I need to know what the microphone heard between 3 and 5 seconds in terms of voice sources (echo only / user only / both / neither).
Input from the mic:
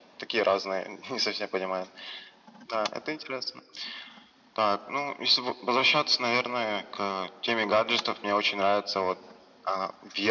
echo only